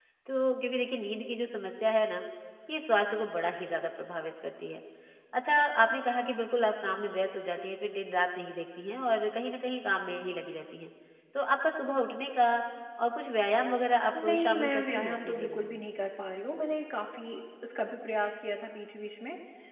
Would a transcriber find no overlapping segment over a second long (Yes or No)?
No